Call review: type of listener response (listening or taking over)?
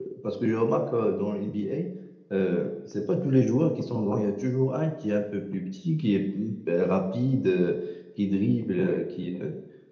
listening